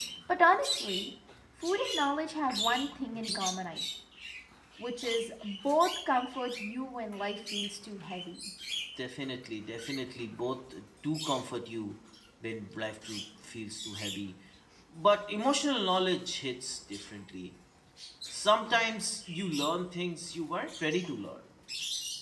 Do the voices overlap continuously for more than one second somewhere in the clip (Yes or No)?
No